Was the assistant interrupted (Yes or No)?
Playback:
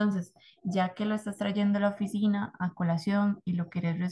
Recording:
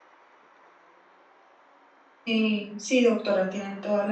Yes